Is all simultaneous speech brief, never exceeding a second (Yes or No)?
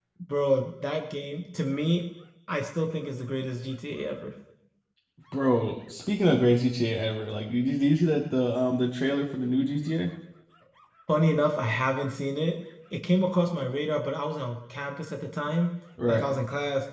Yes